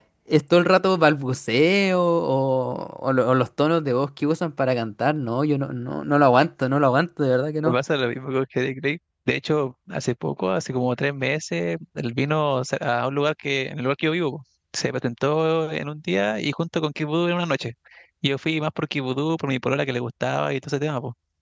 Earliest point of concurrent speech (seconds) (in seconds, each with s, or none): none